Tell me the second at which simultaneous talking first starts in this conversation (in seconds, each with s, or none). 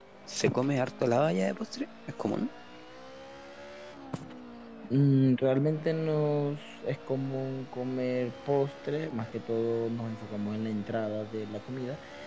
none